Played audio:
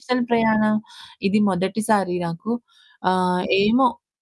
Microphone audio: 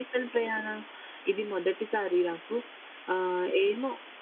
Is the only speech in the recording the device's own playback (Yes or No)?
Yes